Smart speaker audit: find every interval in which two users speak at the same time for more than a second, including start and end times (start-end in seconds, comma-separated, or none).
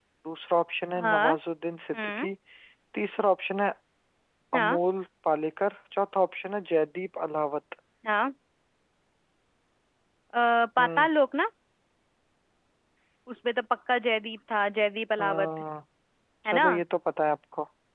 none